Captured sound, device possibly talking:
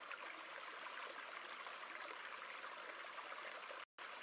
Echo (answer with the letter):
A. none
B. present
A